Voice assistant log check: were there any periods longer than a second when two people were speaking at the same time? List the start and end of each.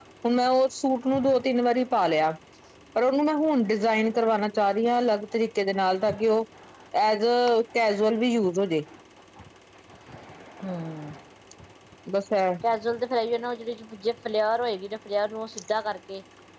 none

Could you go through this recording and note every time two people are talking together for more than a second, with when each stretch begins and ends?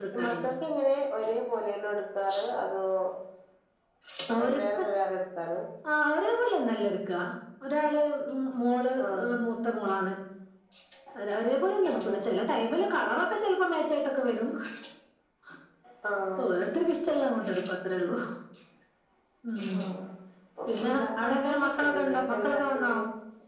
20.7-22.9

